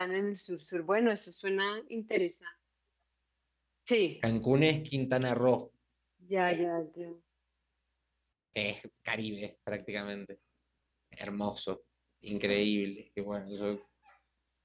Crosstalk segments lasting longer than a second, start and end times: none

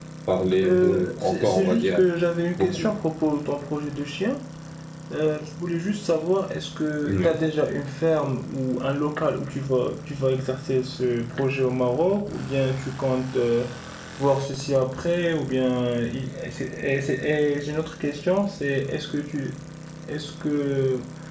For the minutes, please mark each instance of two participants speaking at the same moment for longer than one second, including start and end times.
0.6-2.0

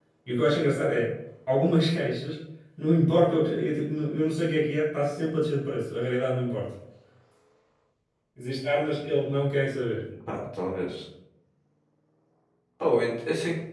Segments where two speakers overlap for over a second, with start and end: none

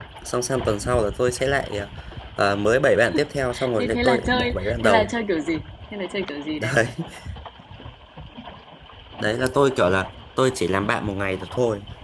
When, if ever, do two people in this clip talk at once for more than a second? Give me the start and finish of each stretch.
3.8-5.1

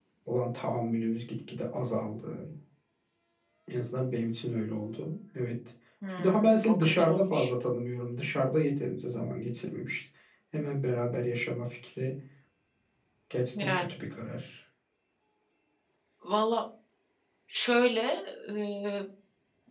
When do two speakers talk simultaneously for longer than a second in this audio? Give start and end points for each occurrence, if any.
6.2-7.5

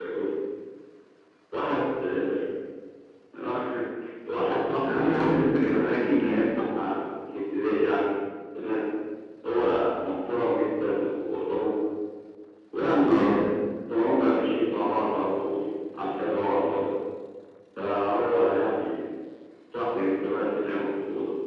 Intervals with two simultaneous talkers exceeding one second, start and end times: 4.9-6.5

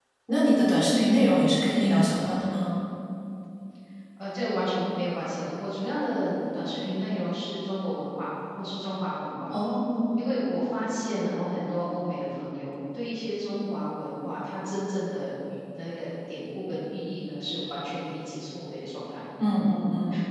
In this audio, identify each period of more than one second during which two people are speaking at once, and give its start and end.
none

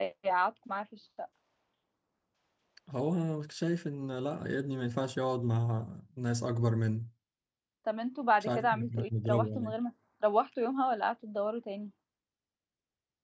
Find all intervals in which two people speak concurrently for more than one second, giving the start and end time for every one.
8.4-9.8

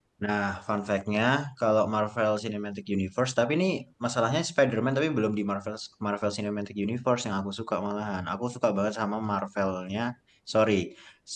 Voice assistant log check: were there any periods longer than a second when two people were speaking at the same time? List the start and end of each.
none

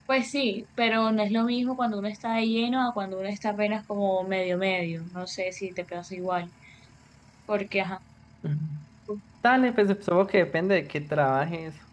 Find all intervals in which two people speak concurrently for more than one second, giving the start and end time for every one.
none

